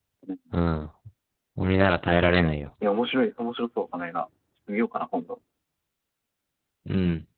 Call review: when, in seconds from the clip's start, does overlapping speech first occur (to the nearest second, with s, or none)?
none